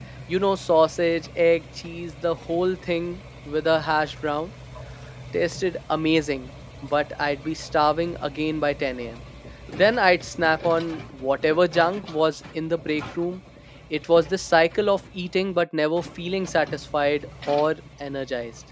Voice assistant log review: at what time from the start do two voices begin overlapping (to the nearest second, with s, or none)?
none